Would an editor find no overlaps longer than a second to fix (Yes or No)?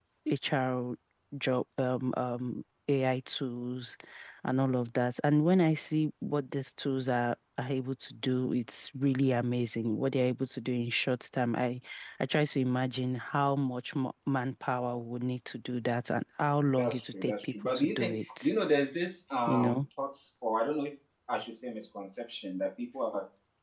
No